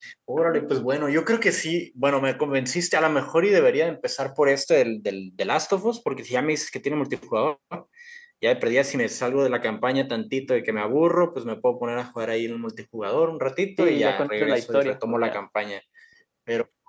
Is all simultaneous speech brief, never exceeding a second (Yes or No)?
No